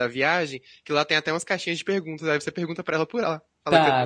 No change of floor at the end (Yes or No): No